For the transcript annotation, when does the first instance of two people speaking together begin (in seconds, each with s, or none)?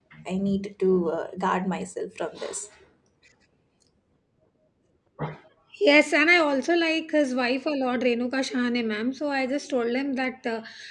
none